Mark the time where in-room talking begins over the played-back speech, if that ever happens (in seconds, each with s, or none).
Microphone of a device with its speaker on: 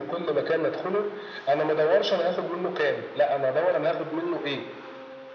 none